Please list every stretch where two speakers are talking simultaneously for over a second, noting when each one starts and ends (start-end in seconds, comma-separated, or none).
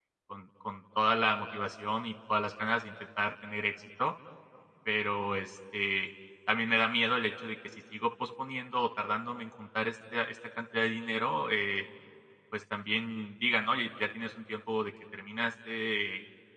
none